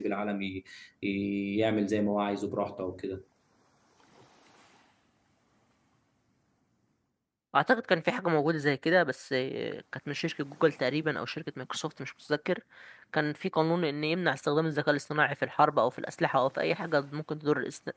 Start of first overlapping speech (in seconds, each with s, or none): none